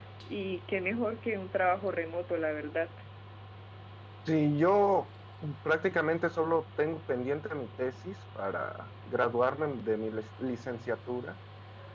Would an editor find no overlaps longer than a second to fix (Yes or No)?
Yes